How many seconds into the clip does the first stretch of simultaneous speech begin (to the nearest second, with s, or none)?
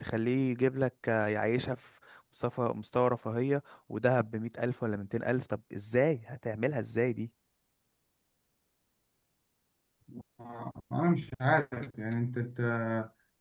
none